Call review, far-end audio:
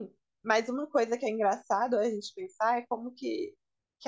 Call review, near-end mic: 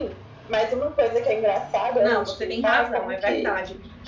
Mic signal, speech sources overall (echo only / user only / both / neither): both